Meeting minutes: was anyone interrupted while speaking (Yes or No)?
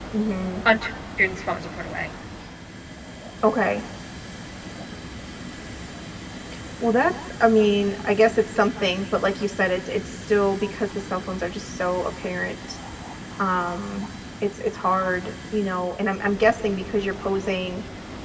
No